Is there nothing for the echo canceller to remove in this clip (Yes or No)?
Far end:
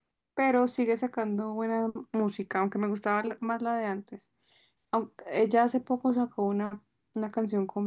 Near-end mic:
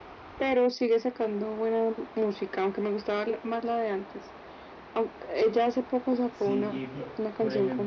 No